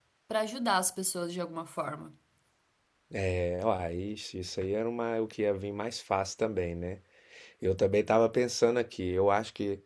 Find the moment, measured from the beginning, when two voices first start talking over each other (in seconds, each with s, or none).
none